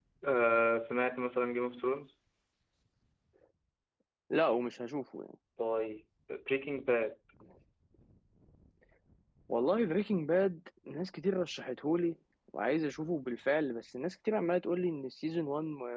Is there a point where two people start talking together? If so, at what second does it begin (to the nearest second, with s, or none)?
none